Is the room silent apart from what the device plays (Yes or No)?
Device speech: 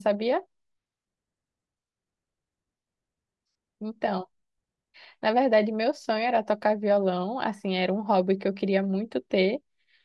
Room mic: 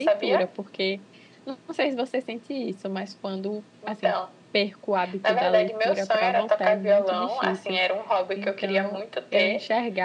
No